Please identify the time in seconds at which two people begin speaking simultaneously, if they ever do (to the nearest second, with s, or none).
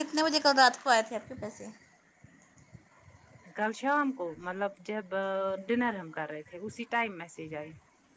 none